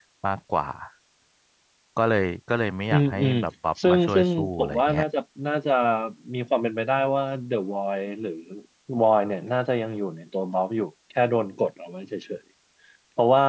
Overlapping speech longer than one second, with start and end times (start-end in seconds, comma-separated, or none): 3.8-5.0